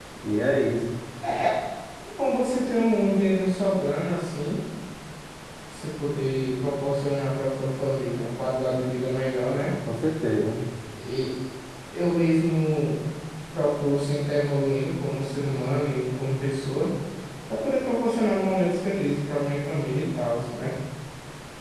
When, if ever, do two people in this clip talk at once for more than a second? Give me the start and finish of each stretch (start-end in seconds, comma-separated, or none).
none